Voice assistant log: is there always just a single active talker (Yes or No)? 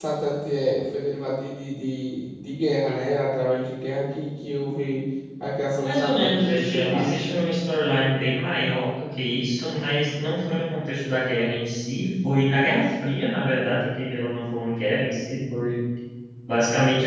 No